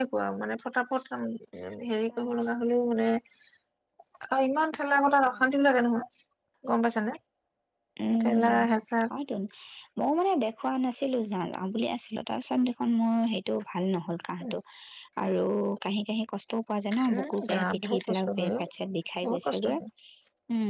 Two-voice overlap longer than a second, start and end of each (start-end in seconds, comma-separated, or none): 17.1-18.6